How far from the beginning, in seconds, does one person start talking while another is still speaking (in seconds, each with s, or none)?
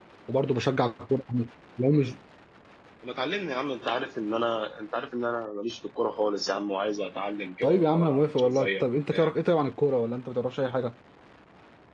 7.6 s